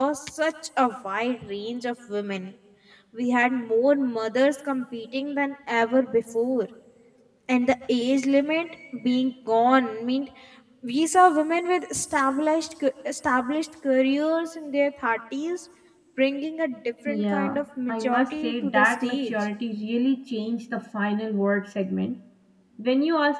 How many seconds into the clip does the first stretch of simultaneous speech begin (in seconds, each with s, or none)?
17.1 s